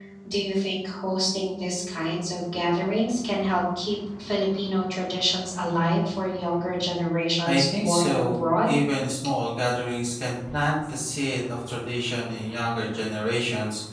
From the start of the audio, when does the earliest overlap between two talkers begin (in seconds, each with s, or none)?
7.4 s